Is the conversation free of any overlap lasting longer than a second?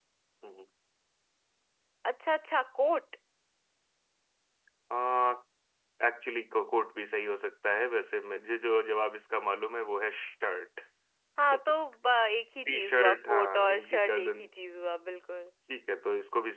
No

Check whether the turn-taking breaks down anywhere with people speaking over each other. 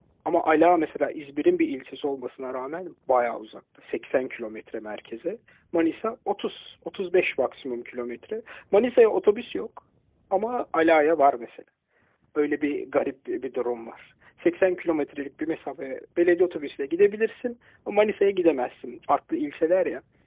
No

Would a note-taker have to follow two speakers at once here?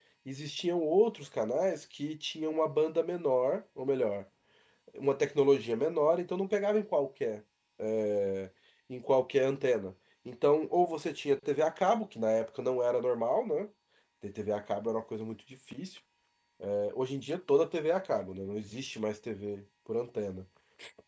No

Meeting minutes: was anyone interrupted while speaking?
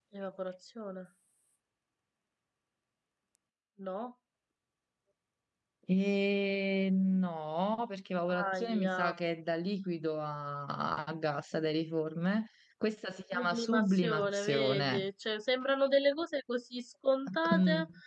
Yes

